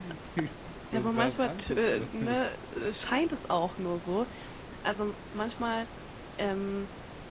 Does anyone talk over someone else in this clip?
Yes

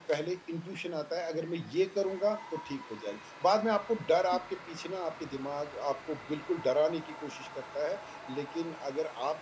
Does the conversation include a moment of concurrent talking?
No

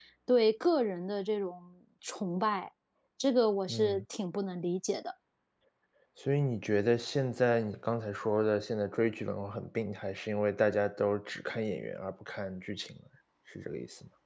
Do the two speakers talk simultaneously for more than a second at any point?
No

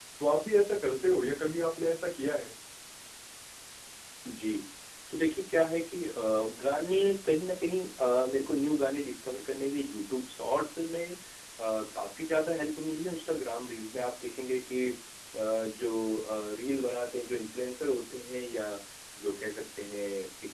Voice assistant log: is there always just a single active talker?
Yes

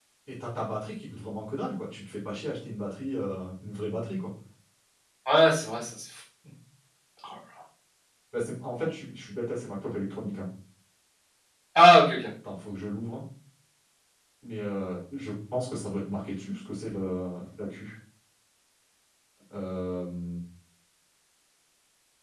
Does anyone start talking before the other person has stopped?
No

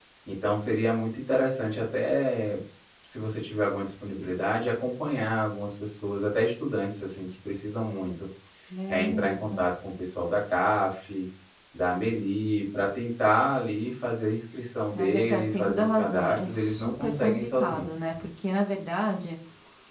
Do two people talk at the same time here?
Yes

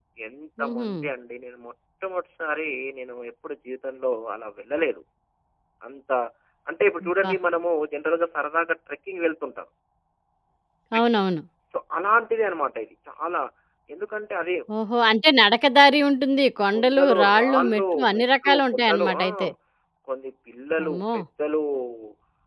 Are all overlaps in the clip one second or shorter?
No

